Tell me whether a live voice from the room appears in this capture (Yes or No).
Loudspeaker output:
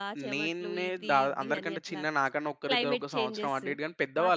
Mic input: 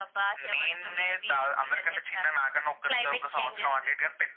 No